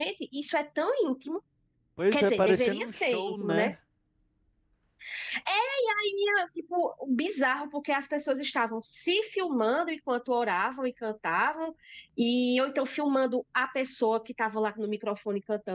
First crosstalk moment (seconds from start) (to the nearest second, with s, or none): 2 s